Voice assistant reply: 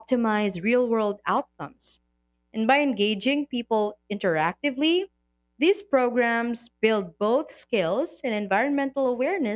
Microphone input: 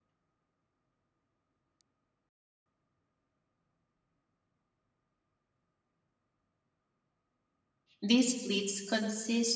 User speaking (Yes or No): Yes